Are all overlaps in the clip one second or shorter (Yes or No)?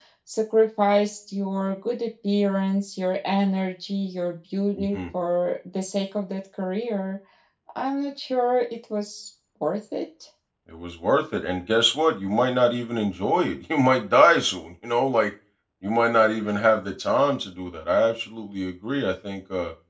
Yes